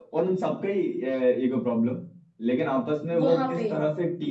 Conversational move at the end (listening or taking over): listening